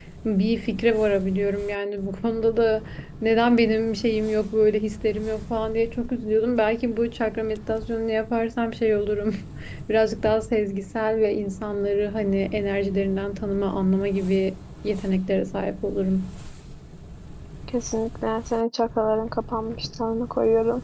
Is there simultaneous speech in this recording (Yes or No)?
No